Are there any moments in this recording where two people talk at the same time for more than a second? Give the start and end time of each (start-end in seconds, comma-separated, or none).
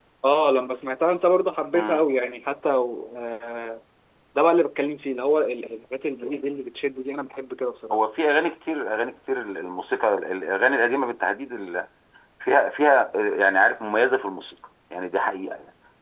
none